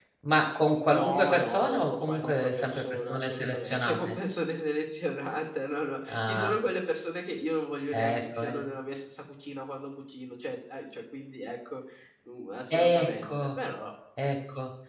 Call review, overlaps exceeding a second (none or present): present